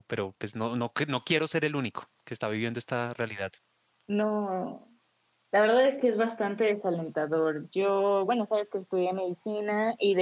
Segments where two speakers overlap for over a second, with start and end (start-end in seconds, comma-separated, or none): none